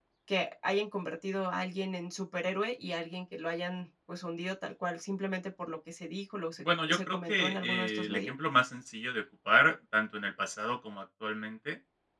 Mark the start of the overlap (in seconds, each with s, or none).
6.6 s